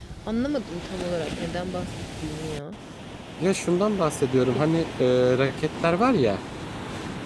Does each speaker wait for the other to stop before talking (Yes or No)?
Yes